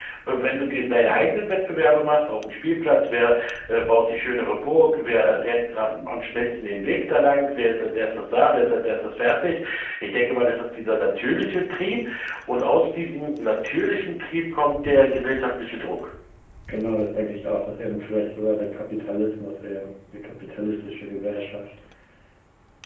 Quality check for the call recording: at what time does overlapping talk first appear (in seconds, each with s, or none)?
none